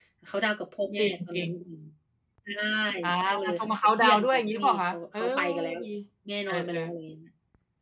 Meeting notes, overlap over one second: present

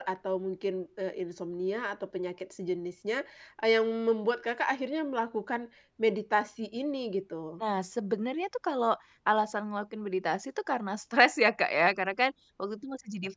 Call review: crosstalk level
none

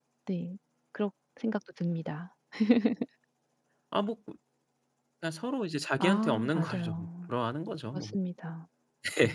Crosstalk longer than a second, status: present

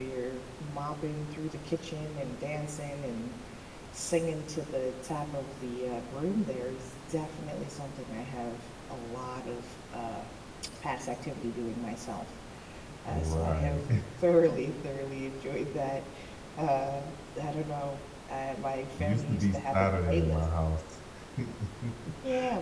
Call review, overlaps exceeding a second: present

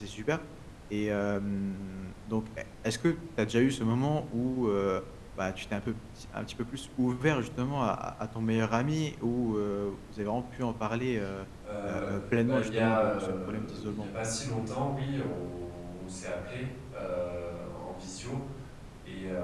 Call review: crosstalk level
present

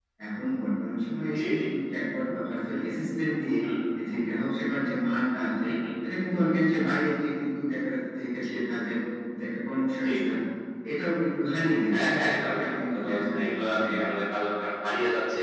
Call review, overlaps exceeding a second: present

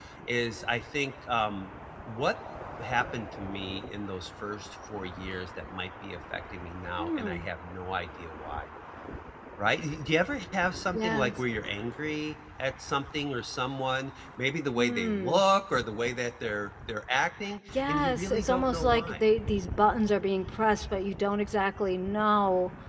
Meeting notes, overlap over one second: present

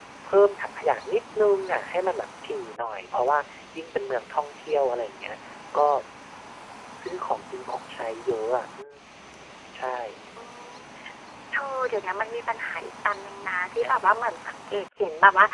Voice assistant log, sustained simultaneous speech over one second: none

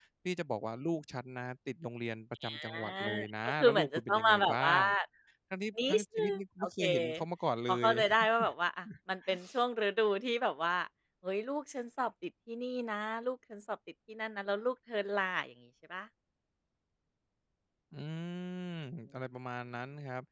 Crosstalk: present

